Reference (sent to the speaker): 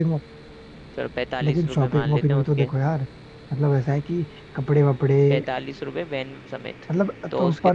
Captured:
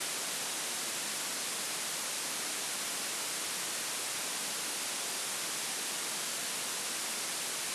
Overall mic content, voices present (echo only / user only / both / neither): neither